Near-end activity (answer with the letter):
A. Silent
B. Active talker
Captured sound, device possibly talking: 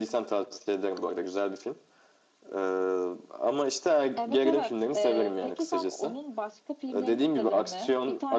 B